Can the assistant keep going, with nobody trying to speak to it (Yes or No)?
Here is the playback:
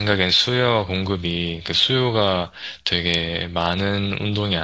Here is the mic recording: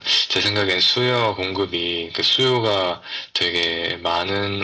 Yes